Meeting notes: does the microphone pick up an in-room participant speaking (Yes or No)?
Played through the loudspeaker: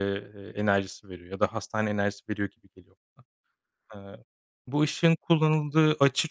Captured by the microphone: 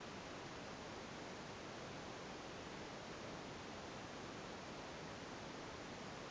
No